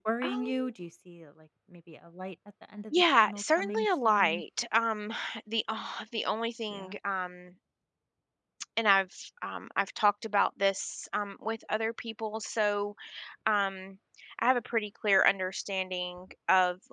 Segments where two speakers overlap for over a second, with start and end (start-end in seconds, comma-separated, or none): 2.9-4.4